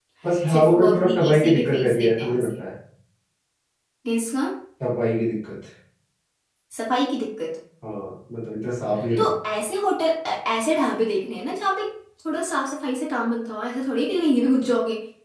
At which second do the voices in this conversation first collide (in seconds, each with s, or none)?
0.5 s